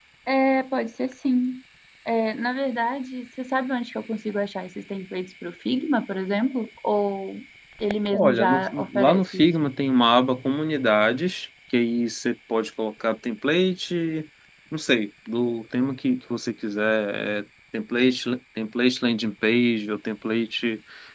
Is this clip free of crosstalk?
No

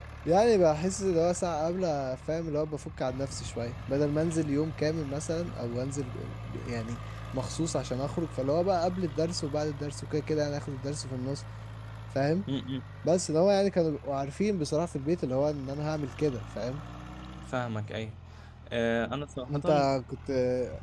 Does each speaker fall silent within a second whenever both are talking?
Yes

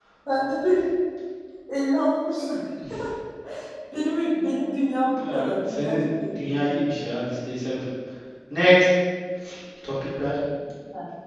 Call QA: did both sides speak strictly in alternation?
No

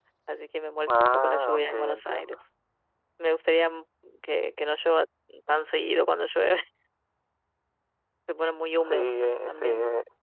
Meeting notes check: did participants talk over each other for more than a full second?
Yes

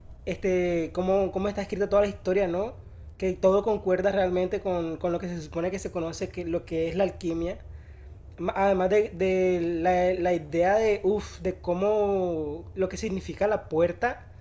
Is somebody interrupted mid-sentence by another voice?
No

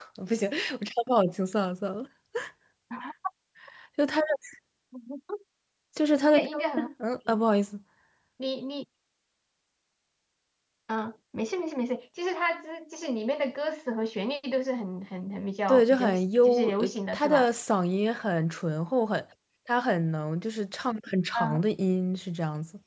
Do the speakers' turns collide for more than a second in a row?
Yes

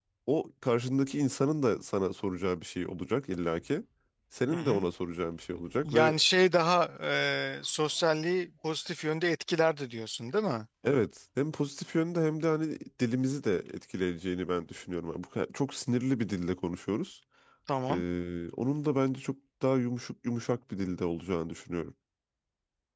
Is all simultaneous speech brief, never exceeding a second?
Yes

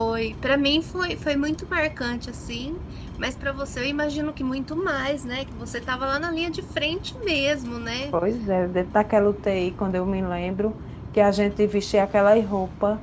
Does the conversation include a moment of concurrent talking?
No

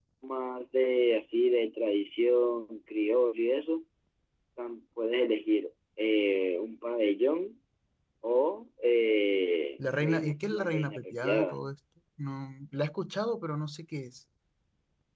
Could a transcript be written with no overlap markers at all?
No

